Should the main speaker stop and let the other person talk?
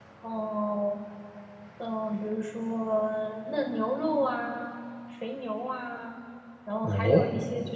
No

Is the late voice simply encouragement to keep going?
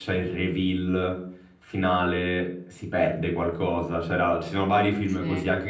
Yes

